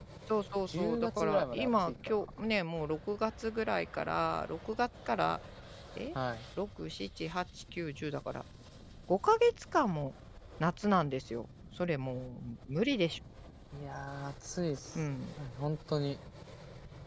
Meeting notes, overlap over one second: present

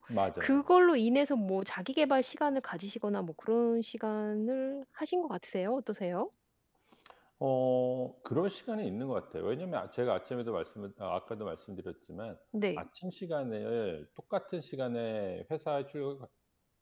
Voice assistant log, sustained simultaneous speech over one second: none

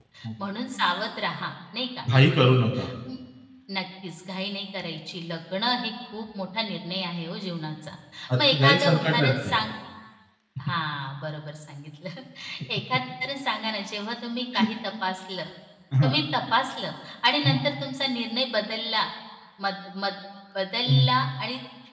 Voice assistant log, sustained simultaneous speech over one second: present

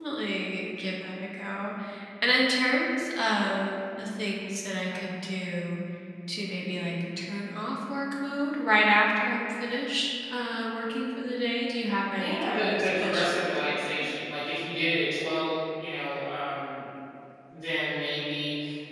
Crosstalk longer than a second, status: present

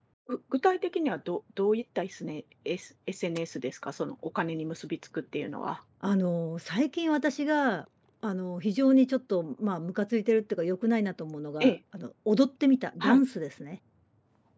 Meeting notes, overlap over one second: none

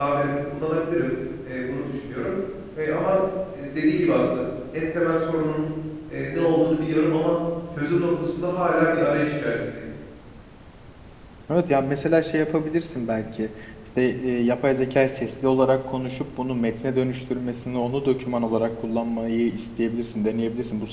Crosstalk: none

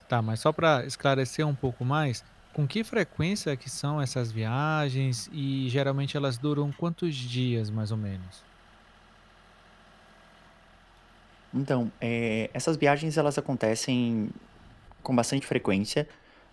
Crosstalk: none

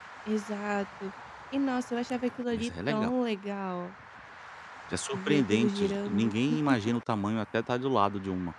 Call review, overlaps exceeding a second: present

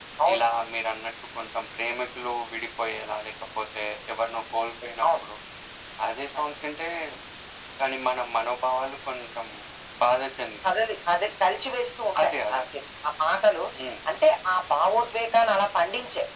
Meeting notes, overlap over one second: none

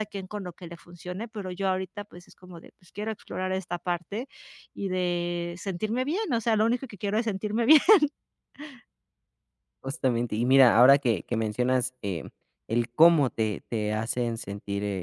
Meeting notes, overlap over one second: none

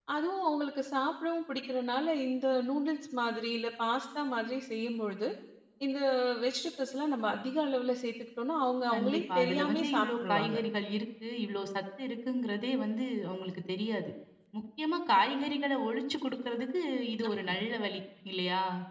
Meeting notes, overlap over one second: present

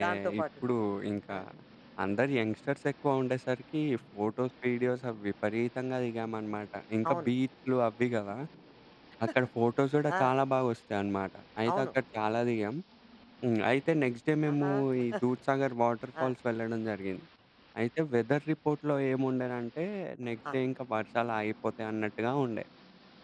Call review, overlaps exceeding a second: none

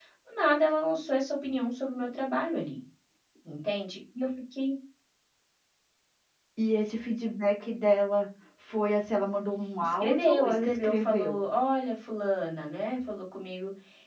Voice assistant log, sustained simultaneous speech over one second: present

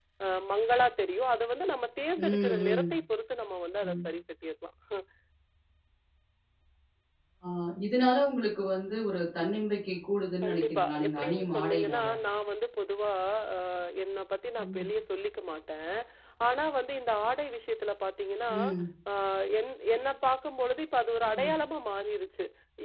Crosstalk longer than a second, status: present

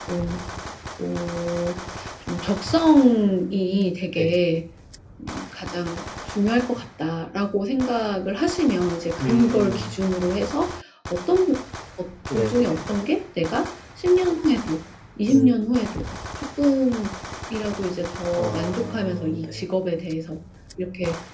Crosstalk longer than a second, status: present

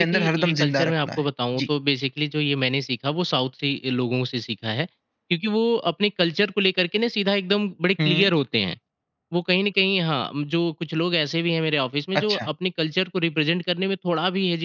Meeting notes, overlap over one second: present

